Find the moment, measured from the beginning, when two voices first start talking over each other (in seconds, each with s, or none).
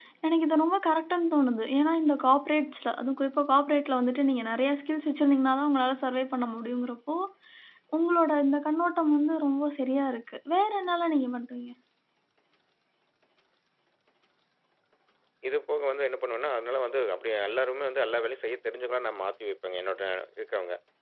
none